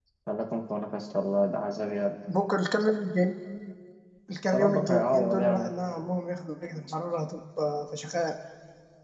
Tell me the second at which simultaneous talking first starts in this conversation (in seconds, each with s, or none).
4.5 s